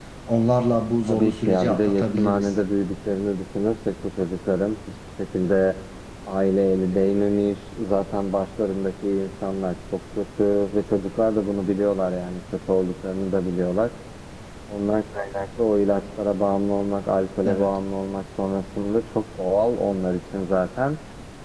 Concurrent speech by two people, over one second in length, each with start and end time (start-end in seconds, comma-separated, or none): 1.1-2.5